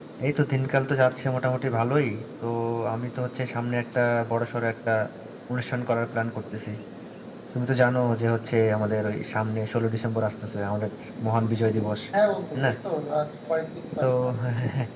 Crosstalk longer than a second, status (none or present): none